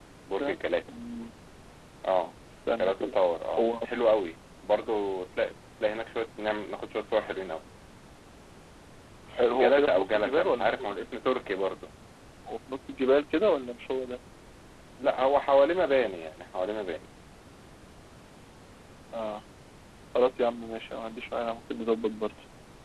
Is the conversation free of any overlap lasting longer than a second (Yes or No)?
No